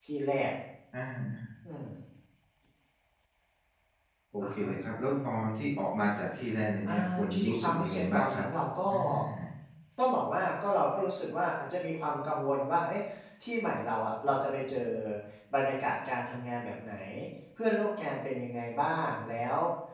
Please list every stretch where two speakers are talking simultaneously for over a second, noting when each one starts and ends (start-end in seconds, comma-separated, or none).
6.8-8.4